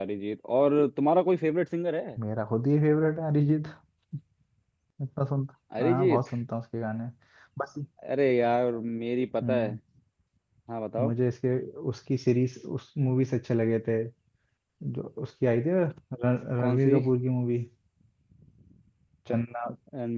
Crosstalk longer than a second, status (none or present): none